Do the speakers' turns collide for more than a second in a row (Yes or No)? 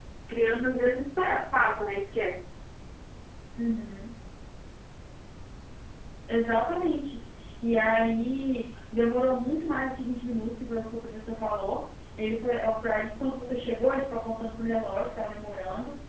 No